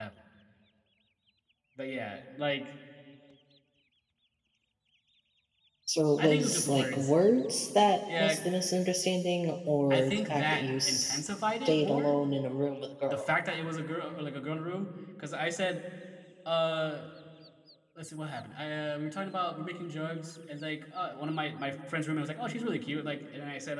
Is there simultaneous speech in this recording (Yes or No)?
Yes